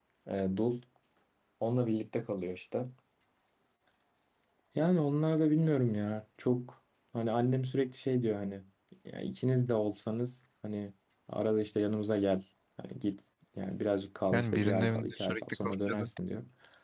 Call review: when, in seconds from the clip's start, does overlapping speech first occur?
14.3 s

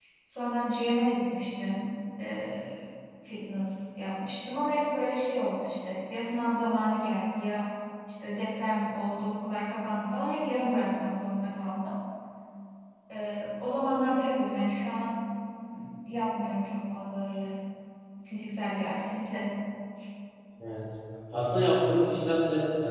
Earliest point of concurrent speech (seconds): none

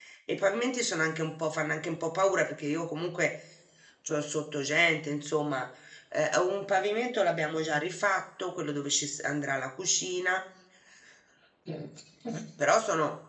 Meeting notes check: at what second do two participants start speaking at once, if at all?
none

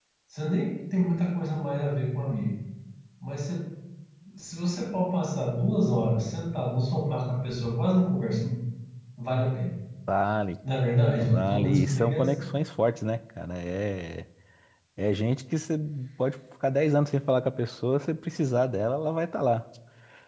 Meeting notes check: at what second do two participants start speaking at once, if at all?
11.2 s

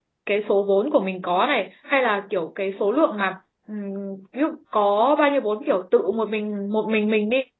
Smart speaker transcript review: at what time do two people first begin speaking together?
none

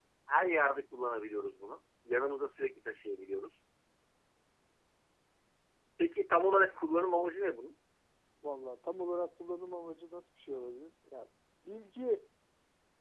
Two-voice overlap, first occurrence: none

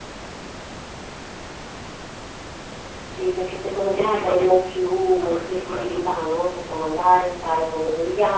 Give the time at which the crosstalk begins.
3.8 s

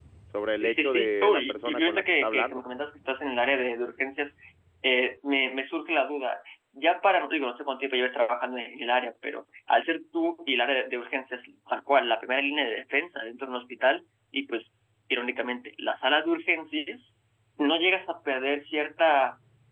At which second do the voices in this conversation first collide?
0.6 s

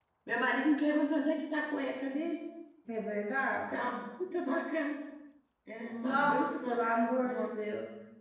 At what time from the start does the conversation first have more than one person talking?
6.0 s

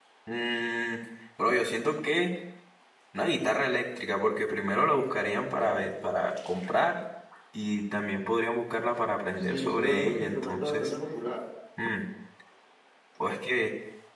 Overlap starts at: 9.5 s

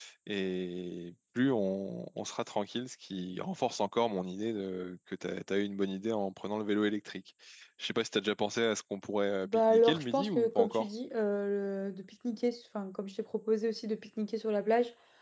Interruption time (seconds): 9.4 s

